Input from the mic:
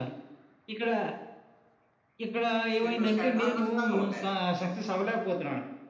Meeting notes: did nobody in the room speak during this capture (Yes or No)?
No